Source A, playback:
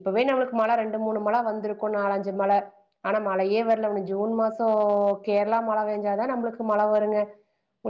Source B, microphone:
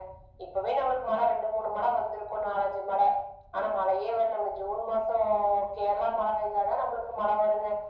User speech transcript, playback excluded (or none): none